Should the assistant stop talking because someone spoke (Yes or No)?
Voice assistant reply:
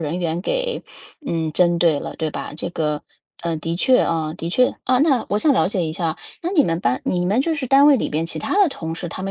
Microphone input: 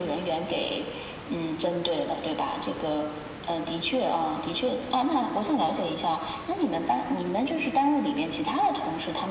No